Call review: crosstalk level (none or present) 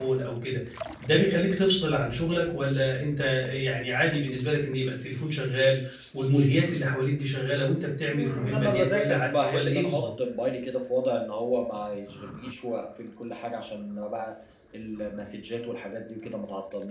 present